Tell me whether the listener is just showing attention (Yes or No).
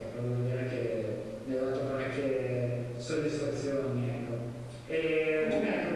Yes